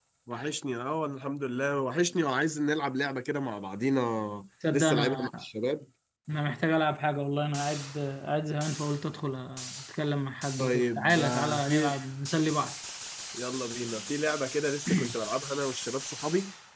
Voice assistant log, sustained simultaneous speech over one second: present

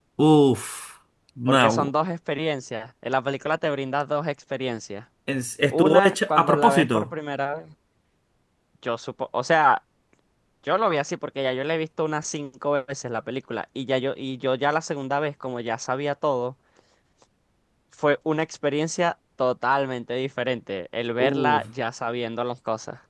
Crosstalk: present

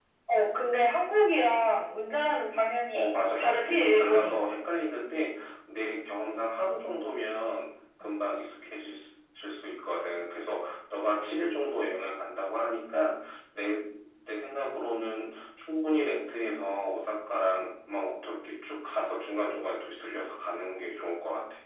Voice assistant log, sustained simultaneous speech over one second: present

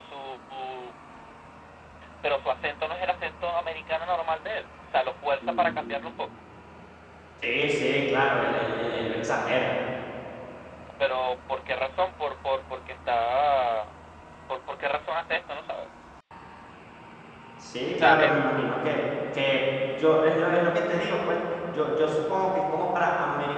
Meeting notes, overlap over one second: none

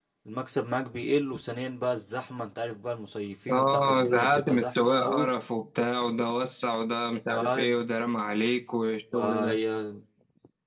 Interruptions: present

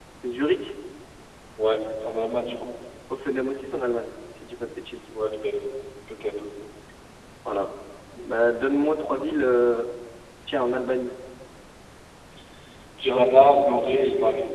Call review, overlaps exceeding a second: none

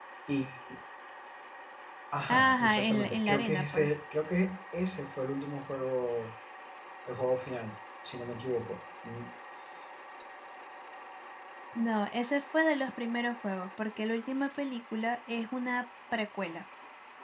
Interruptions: present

